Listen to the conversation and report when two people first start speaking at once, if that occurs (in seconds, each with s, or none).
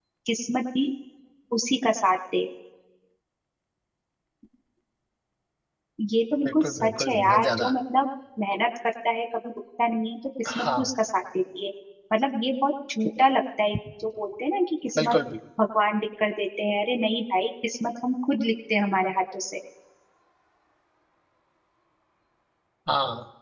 6.5 s